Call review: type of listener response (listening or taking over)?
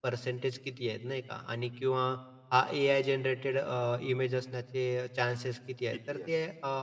listening